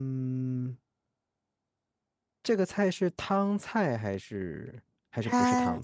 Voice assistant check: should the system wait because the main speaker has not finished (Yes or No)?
No